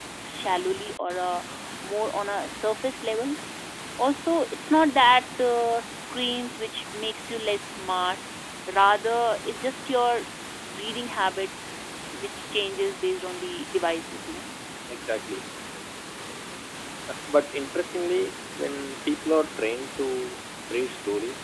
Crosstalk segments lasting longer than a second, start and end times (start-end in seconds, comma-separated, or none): none